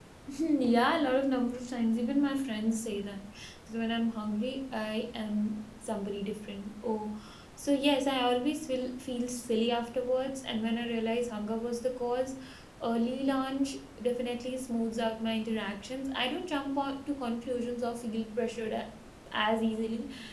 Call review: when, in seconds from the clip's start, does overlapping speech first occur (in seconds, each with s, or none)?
none